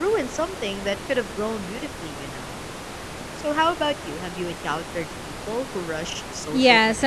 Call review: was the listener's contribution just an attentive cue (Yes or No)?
No